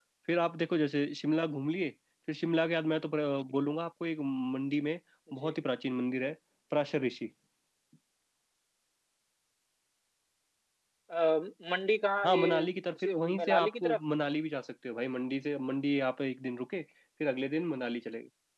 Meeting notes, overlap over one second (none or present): present